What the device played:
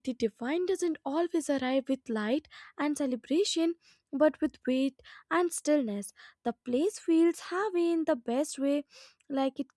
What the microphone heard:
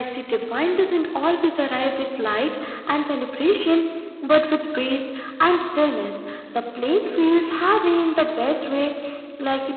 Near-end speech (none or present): none